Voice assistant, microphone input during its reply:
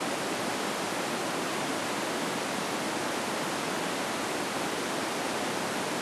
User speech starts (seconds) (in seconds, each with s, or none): none